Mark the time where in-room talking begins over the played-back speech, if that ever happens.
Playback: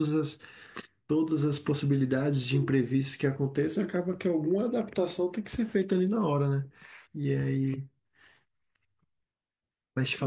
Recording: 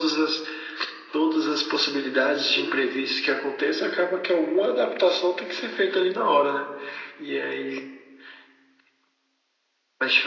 none

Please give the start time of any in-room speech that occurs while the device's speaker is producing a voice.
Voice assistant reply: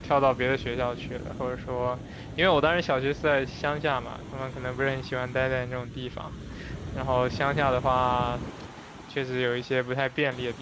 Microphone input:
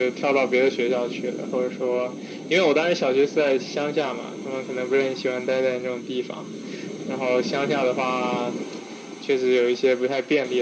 none

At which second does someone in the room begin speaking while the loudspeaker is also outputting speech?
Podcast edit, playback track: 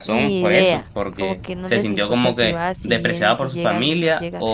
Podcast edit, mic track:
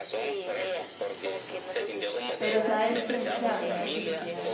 2.4 s

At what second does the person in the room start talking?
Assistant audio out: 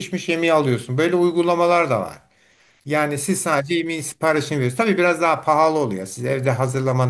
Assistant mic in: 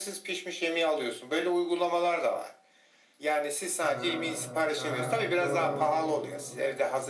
3.8 s

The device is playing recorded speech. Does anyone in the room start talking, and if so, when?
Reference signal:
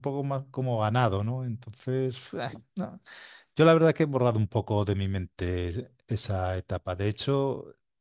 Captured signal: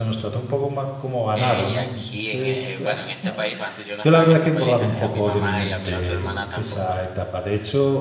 1.3 s

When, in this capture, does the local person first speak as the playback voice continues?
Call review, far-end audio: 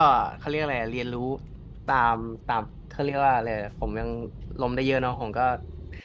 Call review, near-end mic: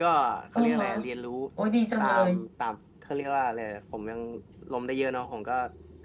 0.5 s

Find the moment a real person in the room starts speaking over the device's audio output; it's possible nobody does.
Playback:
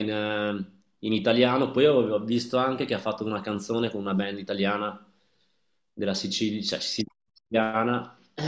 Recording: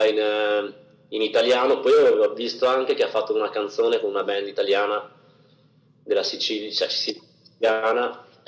none

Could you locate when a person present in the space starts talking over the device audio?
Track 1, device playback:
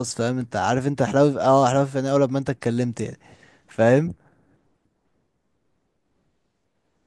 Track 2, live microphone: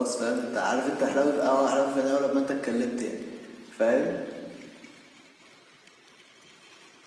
none

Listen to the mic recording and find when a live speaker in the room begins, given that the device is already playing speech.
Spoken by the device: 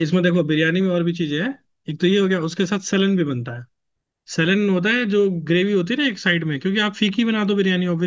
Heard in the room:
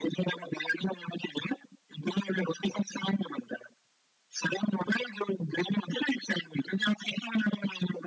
none

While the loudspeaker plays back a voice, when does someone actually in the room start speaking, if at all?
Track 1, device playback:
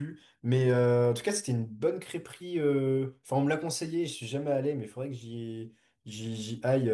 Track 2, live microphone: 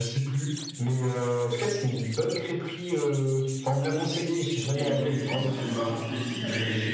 4.7 s

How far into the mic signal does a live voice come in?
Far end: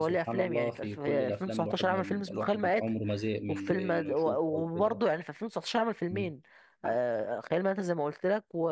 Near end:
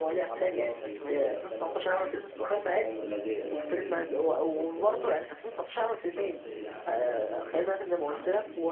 2.8 s

